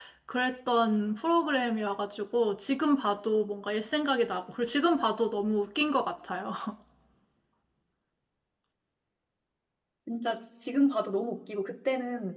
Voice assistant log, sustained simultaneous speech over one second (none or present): none